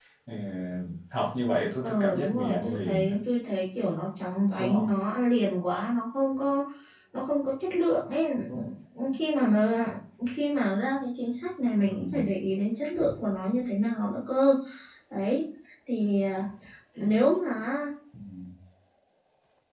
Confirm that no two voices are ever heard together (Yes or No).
No